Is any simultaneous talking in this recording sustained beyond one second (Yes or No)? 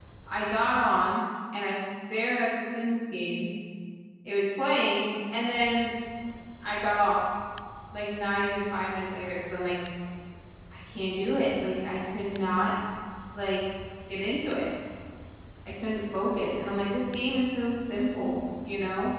No